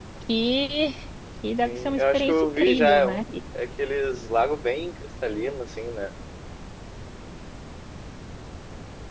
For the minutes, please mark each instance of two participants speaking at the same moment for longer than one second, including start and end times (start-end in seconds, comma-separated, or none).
1.6-3.2